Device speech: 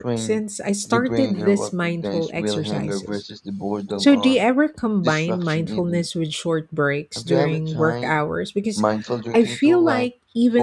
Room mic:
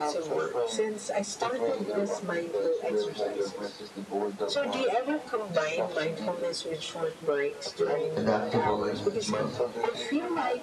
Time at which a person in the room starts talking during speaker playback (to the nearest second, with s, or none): 8 s